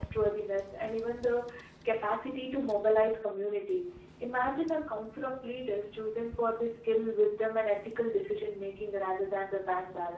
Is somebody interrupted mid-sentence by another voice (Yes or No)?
No